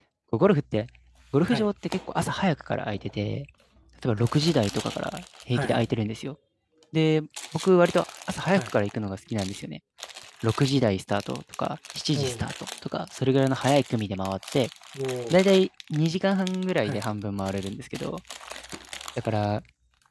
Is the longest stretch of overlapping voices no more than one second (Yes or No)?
Yes